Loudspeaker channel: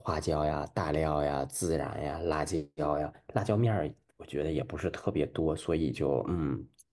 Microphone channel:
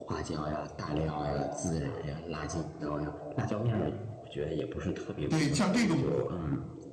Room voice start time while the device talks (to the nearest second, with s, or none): 5 s